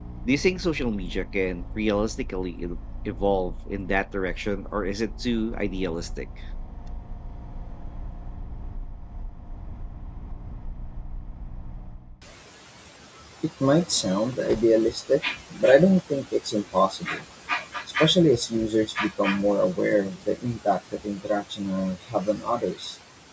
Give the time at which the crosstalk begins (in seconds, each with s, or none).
none